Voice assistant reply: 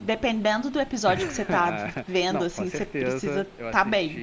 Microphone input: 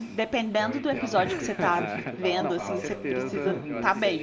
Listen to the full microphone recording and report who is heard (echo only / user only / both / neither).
both